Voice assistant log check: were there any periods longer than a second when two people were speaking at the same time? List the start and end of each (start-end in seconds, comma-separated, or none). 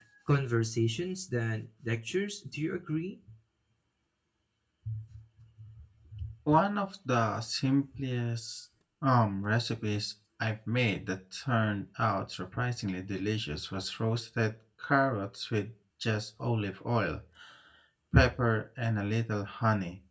none